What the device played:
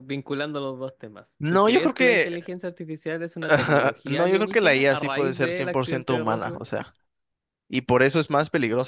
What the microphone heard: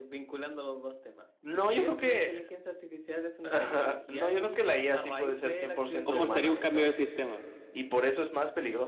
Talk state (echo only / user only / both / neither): both